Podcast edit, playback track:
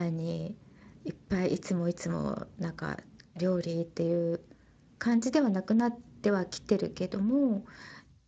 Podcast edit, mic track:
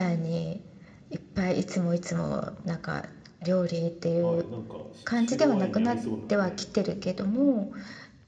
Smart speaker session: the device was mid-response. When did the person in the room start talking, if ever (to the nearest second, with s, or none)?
4 s